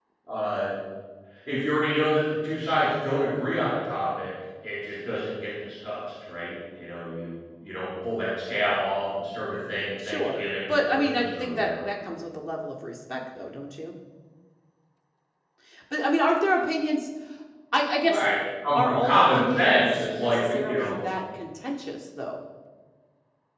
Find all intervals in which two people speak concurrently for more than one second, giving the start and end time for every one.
10.1-11.8, 18.8-20.9

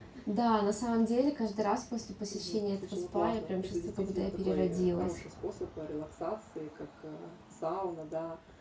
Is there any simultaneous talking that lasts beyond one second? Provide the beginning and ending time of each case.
2.3-5.2

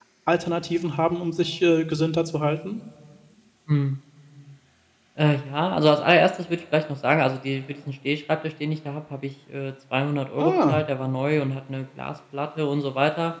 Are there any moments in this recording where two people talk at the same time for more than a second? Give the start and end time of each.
none

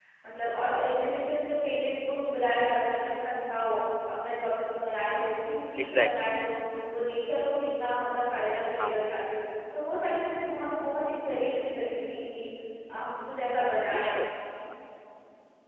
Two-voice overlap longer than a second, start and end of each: none

